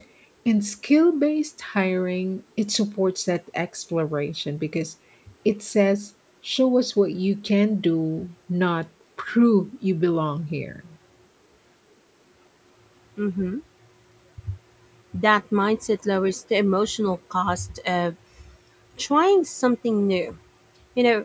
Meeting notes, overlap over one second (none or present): none